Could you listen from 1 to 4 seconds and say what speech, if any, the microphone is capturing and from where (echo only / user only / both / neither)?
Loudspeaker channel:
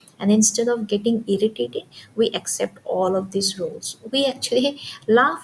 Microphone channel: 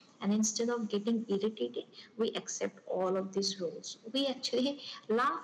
echo only